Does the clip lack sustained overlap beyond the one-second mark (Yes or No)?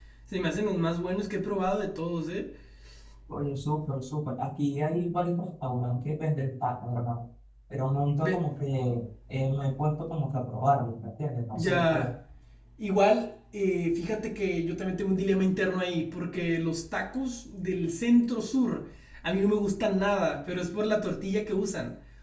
Yes